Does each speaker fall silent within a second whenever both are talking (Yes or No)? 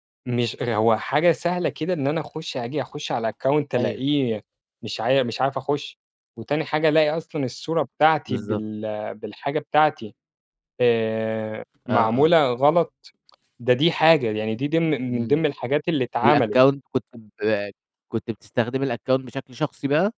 Yes